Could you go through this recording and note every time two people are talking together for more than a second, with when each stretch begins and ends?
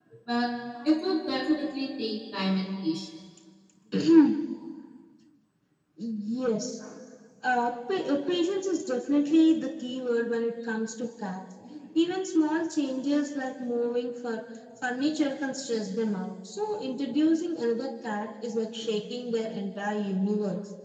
none

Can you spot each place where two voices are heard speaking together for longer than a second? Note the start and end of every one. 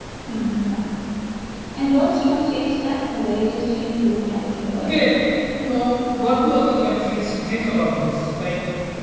none

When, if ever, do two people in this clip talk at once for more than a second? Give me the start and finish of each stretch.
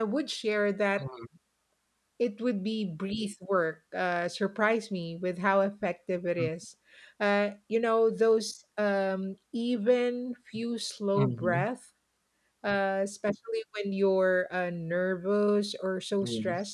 none

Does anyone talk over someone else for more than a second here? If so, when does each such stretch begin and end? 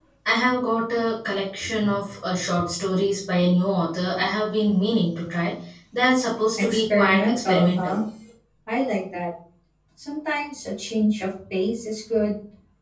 6.6-8.0

